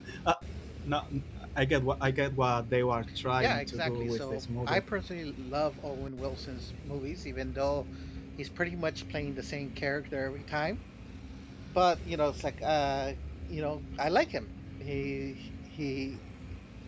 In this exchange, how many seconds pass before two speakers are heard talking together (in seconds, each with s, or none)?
3.4 s